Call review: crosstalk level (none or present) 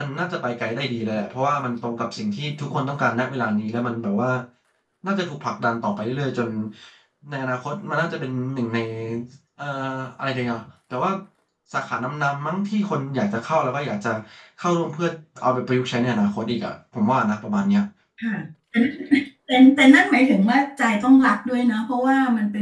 none